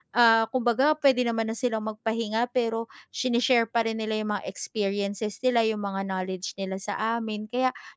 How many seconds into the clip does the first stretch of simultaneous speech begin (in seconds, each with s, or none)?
none